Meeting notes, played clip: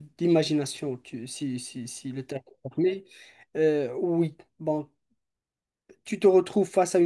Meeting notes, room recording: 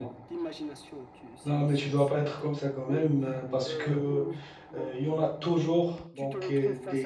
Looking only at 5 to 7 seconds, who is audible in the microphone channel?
both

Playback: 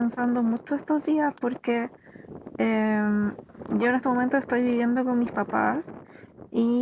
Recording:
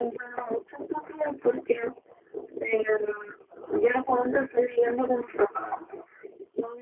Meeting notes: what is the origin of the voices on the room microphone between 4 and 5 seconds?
echo only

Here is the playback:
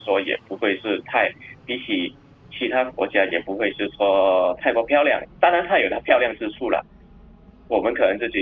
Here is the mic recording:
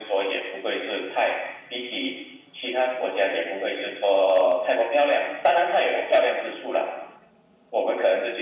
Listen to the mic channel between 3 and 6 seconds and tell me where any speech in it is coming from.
echo only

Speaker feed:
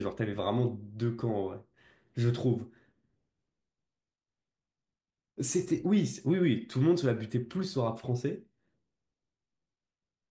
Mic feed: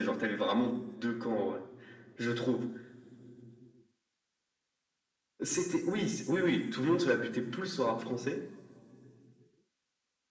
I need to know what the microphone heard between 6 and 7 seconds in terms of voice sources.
echo only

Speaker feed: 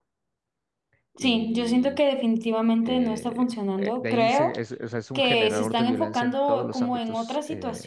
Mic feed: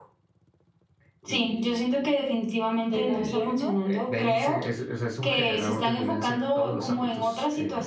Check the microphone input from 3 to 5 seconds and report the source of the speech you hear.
both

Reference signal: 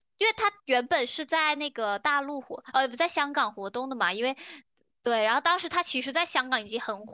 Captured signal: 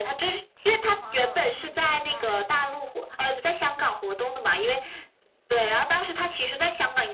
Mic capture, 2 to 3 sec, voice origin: both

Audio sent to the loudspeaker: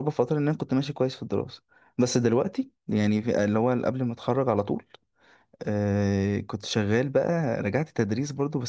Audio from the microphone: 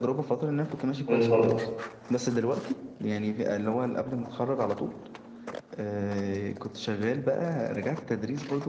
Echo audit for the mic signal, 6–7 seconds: echo only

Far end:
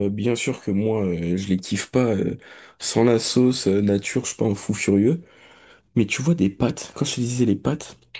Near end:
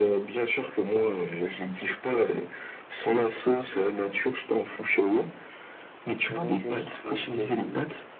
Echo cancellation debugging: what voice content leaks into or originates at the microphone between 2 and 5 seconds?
echo only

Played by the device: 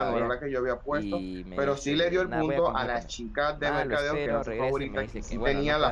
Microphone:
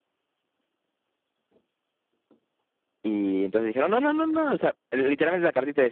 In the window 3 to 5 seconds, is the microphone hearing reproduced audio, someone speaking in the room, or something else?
user only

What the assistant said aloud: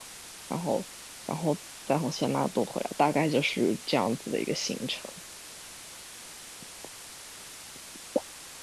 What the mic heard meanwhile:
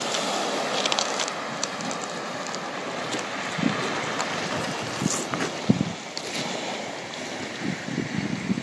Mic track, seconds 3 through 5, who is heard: neither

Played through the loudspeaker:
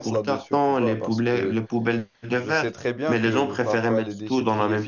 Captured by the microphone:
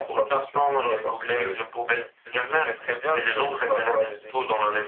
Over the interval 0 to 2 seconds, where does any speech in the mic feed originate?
echo only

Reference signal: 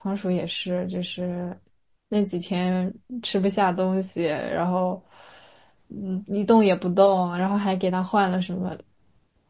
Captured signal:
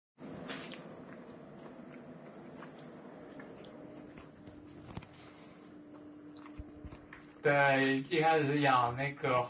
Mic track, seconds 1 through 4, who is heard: neither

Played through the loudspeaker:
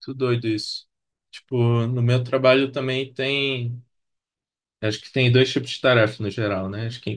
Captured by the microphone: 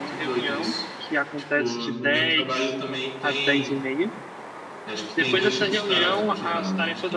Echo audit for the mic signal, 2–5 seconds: both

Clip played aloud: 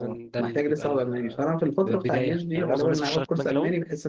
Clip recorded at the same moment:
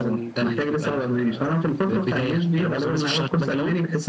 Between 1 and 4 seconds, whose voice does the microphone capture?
echo only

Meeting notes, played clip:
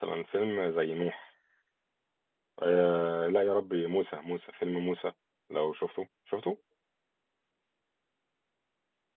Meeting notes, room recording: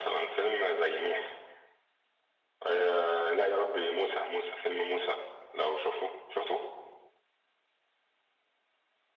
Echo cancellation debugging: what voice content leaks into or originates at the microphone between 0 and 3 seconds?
echo only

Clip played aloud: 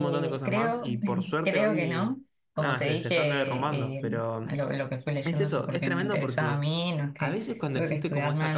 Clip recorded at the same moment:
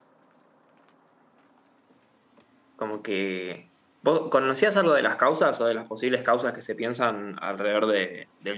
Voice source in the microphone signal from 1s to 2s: neither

